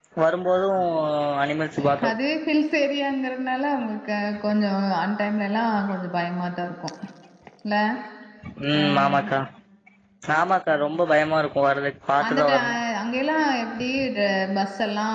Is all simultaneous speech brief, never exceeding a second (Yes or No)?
Yes